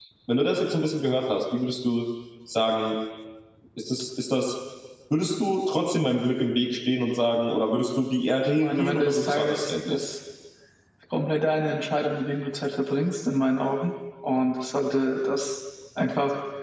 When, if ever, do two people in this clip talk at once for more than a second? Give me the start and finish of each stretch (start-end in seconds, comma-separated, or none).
8.6-10.0